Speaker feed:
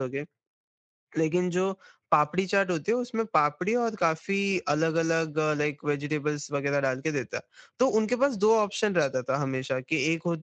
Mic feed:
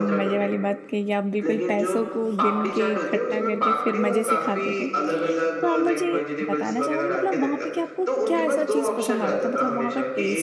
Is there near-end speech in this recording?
Yes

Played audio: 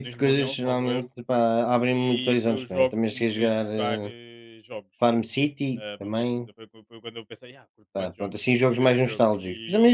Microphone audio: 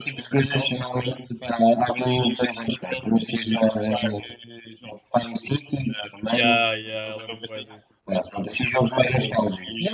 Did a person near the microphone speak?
Yes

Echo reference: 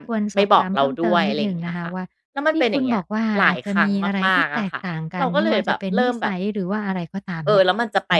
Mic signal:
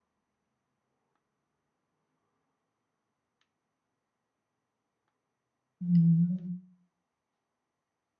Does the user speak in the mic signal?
Yes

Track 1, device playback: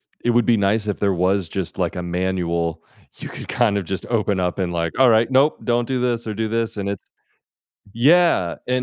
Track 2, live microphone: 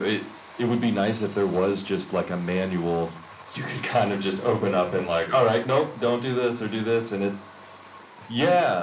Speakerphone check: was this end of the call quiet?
Yes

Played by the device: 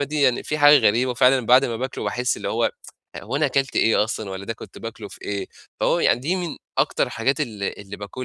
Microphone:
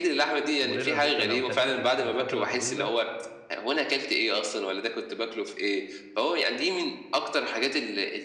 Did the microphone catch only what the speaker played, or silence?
No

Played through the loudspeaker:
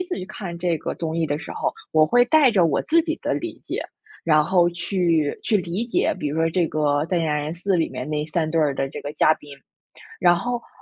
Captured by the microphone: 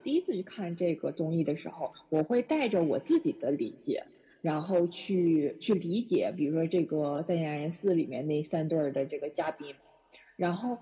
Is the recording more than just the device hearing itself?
No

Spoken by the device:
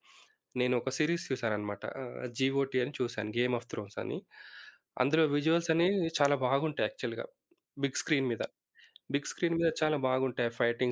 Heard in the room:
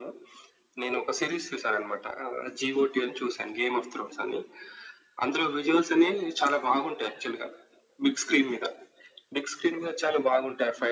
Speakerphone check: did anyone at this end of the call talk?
No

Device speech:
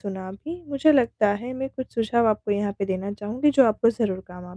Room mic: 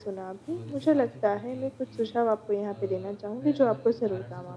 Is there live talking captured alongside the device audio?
Yes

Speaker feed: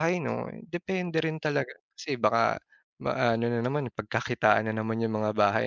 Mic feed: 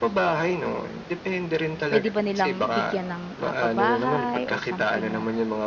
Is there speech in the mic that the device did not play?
Yes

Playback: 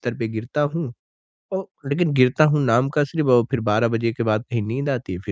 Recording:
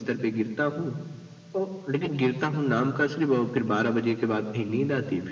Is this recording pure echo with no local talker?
Yes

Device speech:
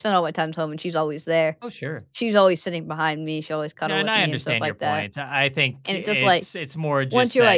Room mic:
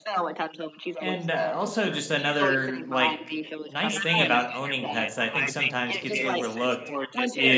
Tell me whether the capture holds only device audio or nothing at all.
No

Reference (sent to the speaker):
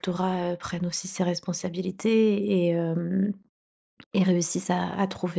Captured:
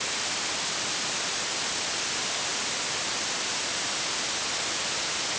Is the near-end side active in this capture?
No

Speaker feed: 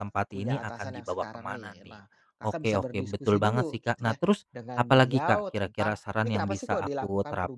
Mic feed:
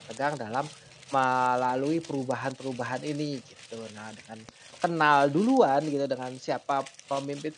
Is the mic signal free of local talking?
No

